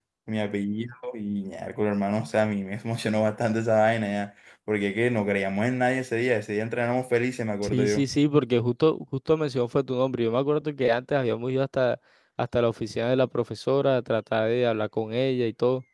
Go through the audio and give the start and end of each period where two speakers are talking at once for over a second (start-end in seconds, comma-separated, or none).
none